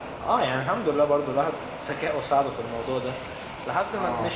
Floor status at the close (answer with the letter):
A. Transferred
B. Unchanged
B